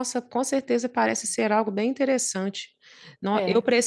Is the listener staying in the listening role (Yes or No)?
Yes